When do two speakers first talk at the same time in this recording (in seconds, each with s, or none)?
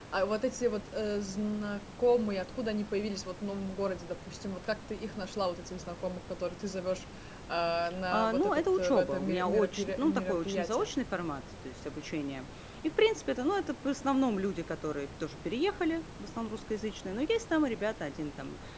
8.1 s